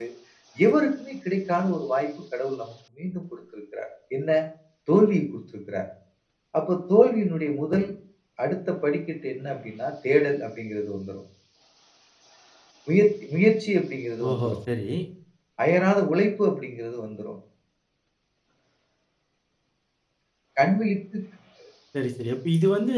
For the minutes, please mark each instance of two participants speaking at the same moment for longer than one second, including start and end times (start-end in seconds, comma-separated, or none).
none